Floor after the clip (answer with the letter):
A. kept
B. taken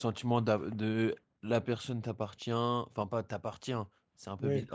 A